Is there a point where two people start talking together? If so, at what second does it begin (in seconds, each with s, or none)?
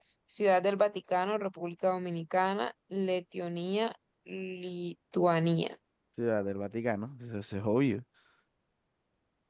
none